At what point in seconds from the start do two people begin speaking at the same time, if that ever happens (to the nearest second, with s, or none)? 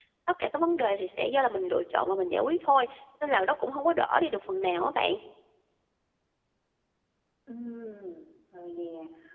none